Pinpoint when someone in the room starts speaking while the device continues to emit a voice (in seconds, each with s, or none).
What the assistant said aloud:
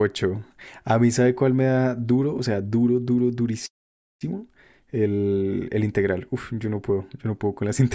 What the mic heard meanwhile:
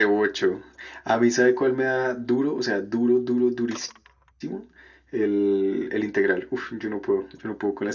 none